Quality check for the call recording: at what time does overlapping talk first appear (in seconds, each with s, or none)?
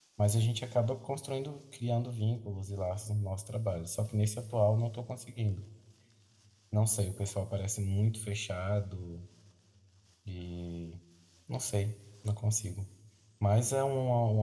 none